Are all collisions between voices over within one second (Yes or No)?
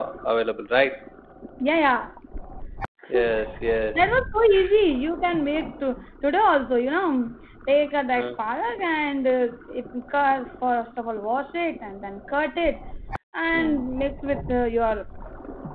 Yes